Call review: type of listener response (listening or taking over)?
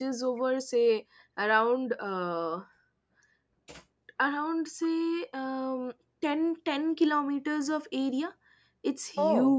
listening